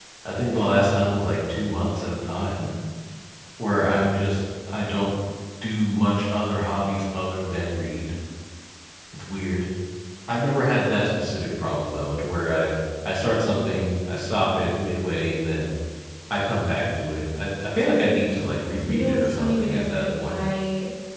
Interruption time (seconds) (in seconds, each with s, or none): 18.9 s